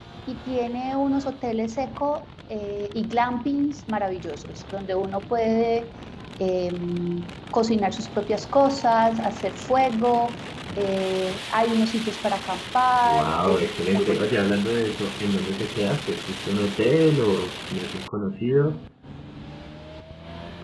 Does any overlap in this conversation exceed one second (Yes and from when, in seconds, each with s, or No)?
Yes, from 13.0 s